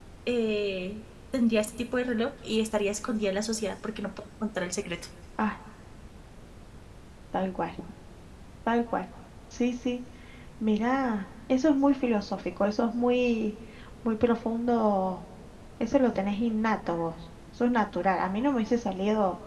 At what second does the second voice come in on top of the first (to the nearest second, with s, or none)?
none